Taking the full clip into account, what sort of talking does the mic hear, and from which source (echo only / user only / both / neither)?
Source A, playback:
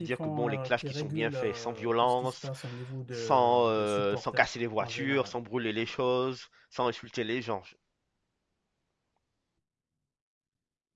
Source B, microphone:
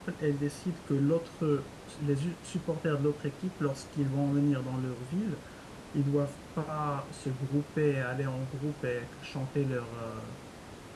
user only